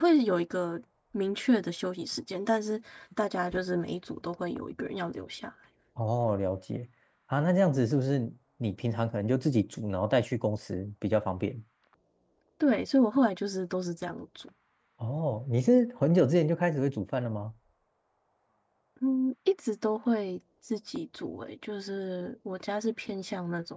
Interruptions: none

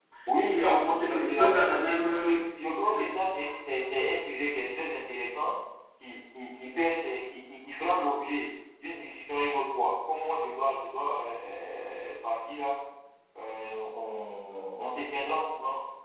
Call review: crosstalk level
present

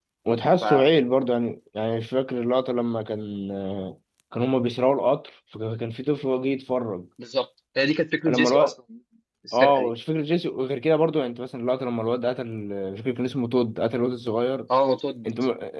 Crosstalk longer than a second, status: none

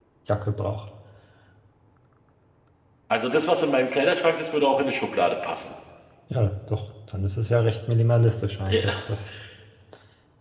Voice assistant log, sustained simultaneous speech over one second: none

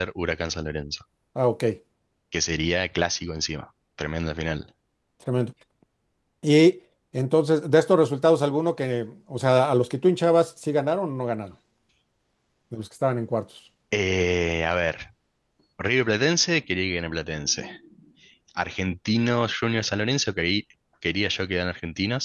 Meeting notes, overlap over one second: none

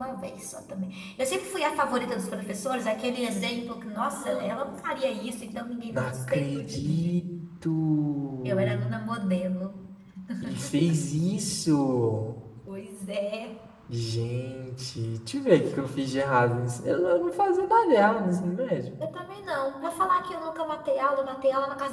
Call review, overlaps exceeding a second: present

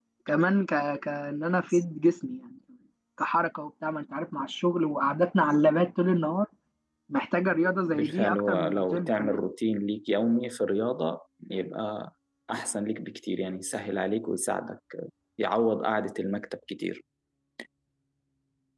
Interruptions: present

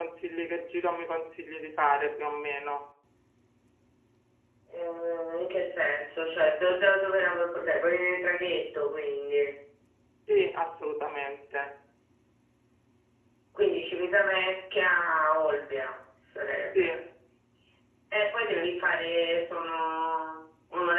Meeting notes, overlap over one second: none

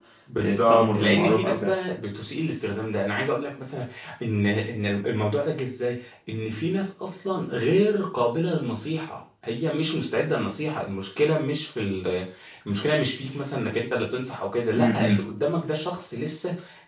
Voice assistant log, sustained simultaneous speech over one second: present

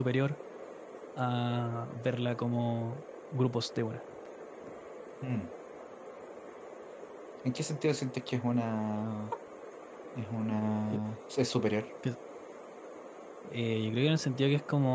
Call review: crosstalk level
none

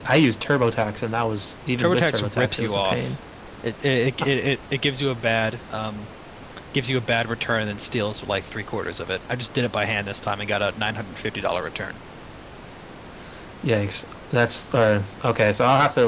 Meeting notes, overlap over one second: present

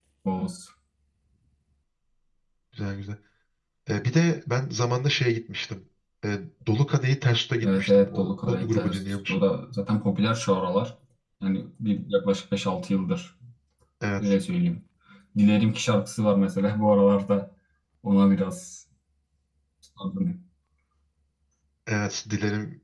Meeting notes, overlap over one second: present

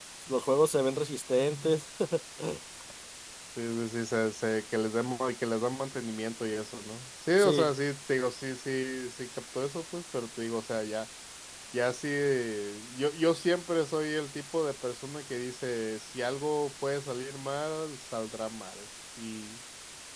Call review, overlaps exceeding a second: none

